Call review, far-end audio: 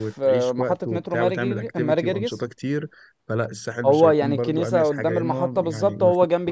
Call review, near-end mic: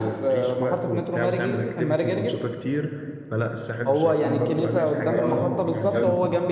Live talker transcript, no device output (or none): اه جامده